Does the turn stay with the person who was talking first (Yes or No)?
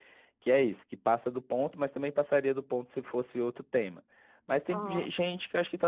Yes